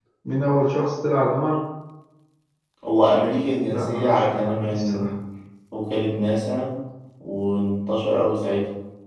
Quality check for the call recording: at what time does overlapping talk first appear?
3.7 s

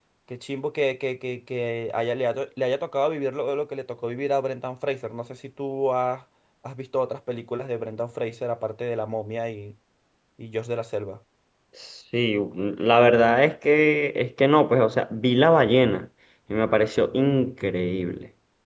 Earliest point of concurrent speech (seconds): none

